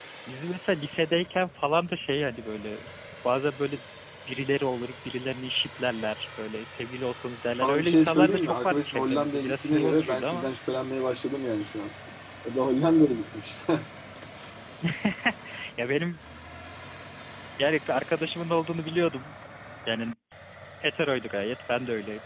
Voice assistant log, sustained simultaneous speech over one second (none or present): present